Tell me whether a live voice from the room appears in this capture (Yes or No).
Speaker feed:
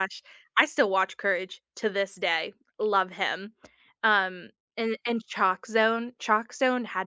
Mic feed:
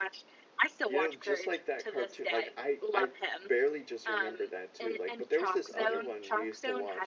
Yes